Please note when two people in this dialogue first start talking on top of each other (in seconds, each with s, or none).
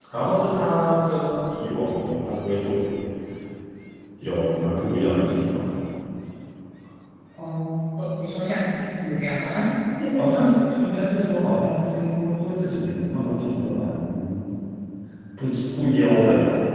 none